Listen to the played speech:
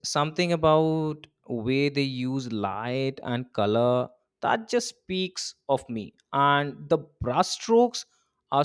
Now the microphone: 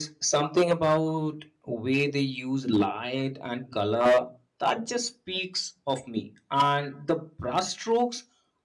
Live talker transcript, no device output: none

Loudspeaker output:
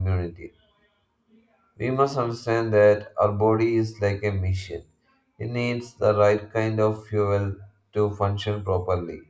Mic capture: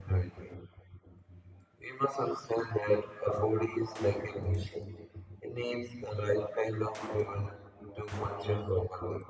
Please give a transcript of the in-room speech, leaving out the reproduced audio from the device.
none

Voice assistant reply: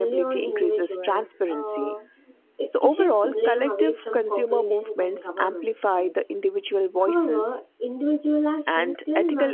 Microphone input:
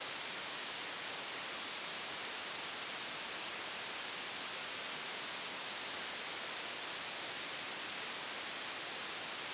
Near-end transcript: none

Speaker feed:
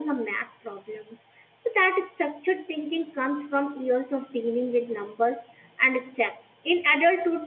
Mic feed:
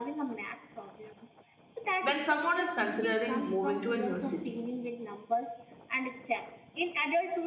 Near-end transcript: when someone is considering moving to a new city,

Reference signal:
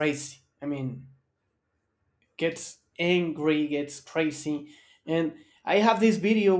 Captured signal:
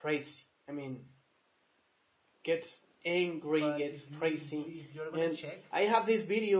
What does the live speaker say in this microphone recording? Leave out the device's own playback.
But if you if you if you're gonna check

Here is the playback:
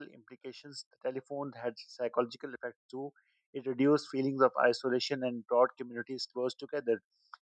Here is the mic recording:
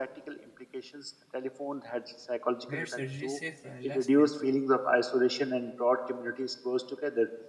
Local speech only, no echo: made surgery safer and less painful,

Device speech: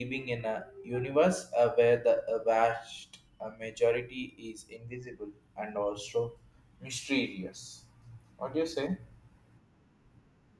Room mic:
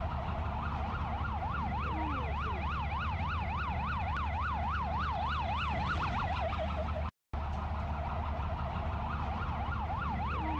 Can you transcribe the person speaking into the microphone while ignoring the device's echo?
none

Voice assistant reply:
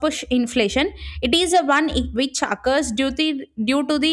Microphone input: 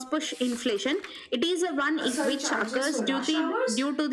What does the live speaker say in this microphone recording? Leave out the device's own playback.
uh, surcharges for rush hours

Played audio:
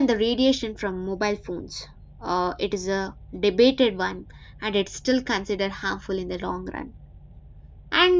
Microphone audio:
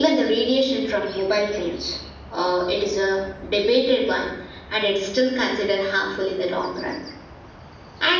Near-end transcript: none

